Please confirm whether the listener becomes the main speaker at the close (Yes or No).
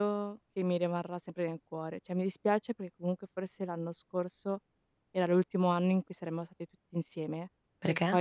No